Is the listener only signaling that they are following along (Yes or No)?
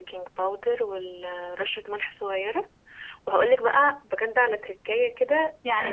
No